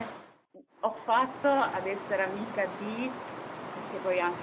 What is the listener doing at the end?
listening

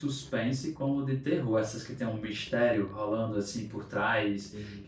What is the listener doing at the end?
listening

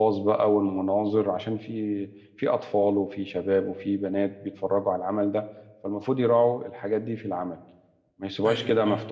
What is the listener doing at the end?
listening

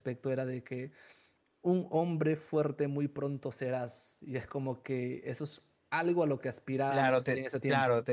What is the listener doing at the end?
taking over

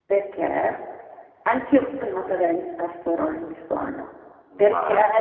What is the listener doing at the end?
listening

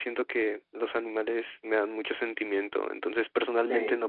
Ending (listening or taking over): listening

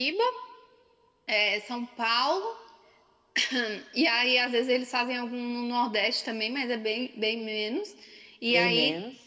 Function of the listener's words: listening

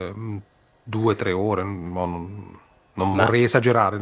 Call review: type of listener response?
listening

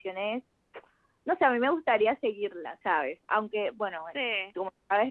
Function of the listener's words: listening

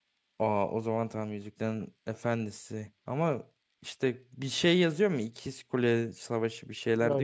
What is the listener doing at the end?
taking over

